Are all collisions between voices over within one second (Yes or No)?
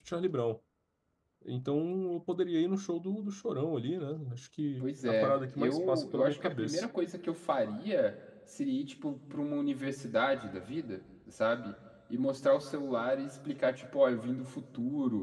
No